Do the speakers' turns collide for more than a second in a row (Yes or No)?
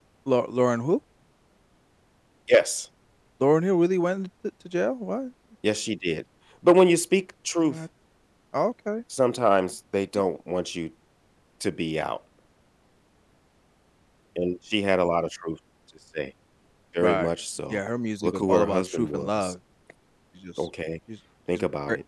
Yes